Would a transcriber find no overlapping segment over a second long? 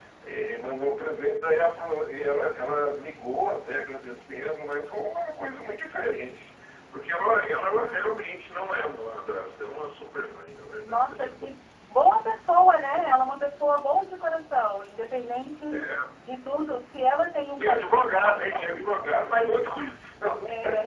No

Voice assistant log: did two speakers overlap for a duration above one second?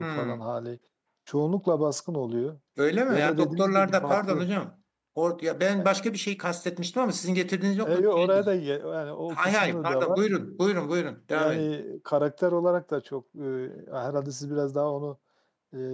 Yes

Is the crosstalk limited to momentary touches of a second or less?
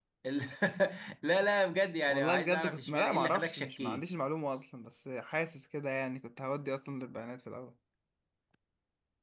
No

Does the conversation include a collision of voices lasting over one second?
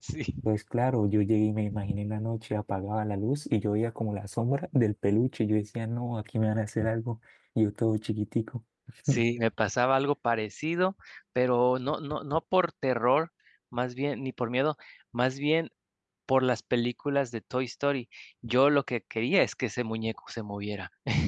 No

